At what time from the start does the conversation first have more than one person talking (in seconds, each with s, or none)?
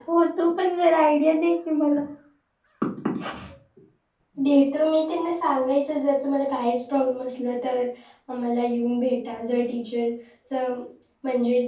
none